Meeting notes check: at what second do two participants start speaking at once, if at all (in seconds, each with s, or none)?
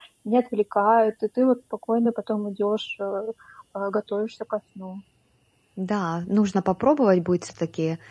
none